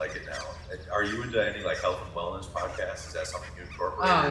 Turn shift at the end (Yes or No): Yes